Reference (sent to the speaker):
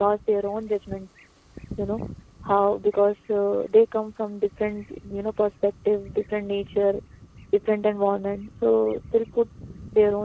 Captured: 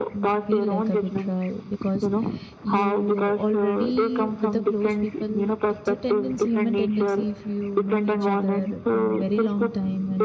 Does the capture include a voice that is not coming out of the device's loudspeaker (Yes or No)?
Yes